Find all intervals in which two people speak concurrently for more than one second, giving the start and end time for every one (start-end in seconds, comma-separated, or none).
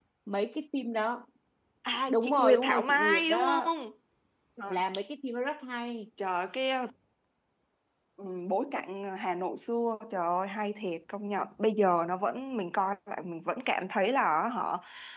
2.1-3.7